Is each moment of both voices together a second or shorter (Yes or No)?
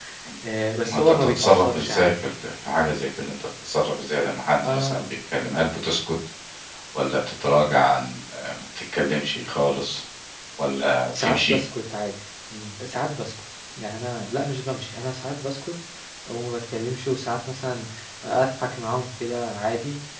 No